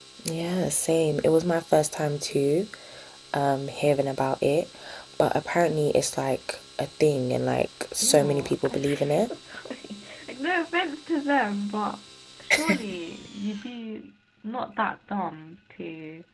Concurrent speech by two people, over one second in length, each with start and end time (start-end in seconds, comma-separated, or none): 8.0-9.3